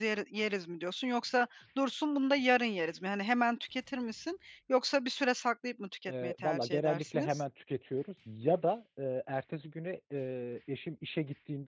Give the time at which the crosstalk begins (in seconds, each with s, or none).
6.1 s